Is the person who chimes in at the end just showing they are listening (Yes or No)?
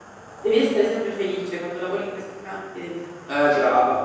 No